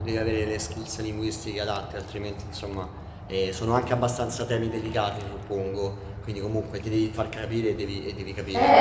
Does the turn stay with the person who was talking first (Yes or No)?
No